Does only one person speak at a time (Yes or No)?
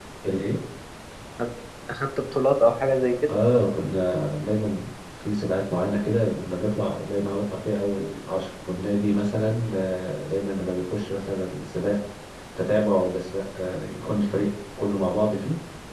Yes